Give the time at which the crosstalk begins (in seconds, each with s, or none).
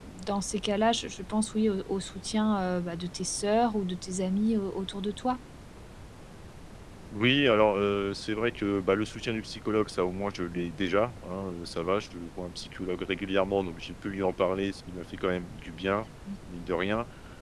none